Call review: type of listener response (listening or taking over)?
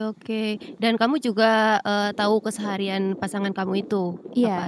taking over